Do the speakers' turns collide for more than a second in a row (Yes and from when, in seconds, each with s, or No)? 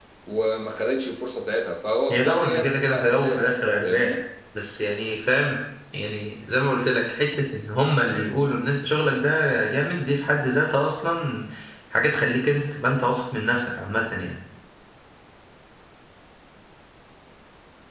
Yes, from 2.1 s